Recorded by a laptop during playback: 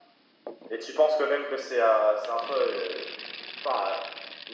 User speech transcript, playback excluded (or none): none